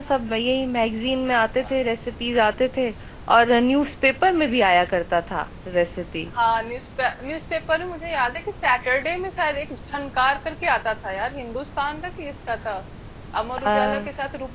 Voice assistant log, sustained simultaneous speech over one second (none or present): none